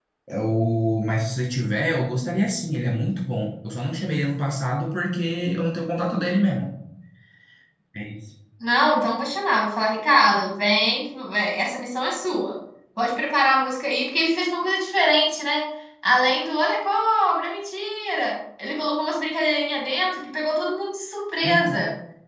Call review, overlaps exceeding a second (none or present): none